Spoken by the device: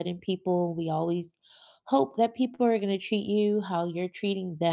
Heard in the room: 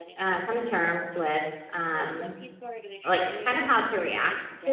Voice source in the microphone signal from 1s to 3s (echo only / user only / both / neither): both